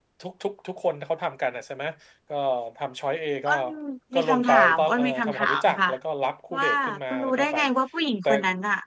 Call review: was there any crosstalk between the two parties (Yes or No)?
Yes